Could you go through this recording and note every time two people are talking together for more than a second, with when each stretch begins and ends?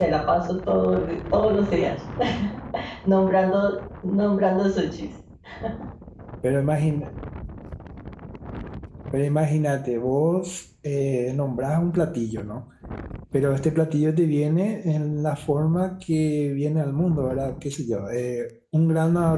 none

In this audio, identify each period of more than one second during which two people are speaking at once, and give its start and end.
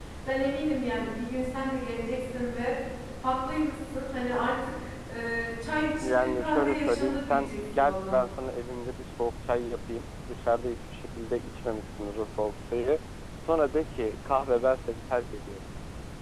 6.0-8.2

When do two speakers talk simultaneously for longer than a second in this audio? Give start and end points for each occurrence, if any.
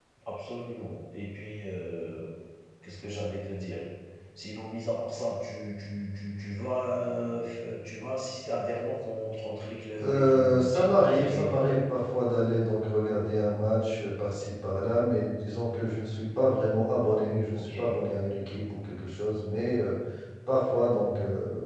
10.0-11.8

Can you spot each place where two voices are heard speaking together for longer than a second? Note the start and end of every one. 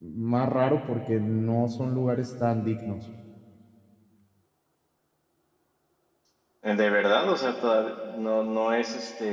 none

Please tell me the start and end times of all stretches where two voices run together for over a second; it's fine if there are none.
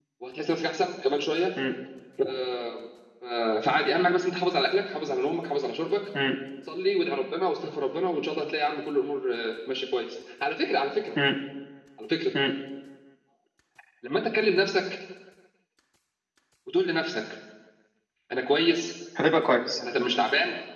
none

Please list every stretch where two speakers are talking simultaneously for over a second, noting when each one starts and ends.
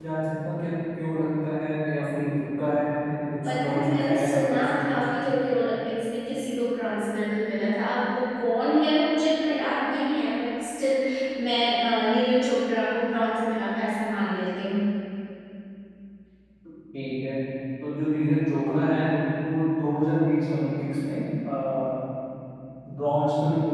3.4-5.1

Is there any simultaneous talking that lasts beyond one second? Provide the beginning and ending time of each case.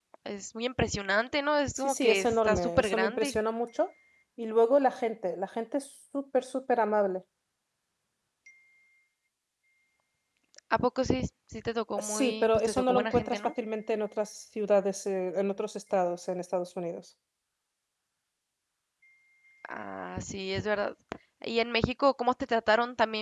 1.8-3.4, 12.0-13.5

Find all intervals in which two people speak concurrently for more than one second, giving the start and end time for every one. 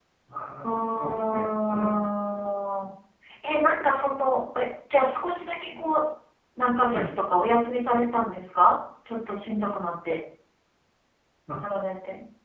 0.6-2.0

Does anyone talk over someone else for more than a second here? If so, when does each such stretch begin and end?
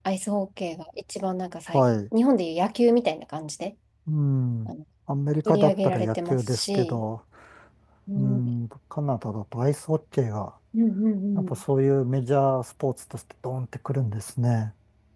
5.5-7.0

